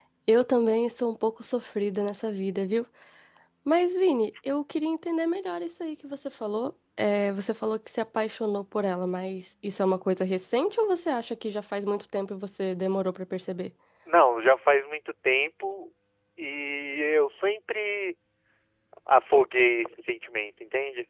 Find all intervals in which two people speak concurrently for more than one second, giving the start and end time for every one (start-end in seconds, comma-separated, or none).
none